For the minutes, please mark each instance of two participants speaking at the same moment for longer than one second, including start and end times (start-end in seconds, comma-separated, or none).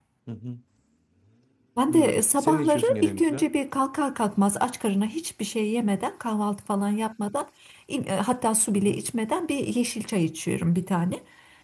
1.9-3.5